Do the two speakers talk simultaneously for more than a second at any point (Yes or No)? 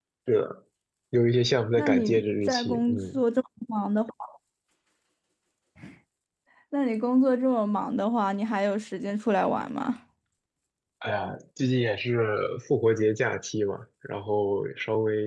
Yes